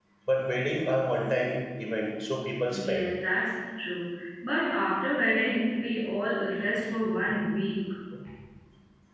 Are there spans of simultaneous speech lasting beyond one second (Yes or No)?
No